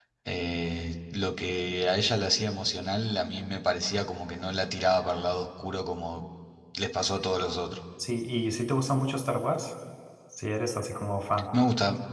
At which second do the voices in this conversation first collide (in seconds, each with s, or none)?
none